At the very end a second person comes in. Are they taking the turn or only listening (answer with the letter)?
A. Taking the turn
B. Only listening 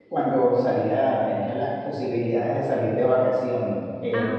B